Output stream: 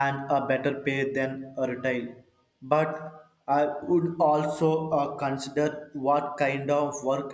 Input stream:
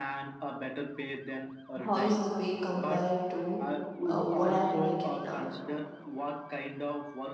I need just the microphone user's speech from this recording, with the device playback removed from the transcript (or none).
How is the pay compared to uh, what I'm making now?